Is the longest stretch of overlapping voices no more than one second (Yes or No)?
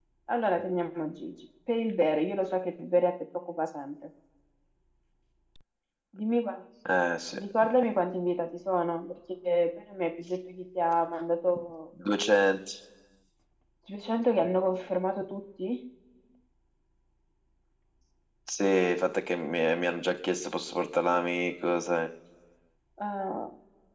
Yes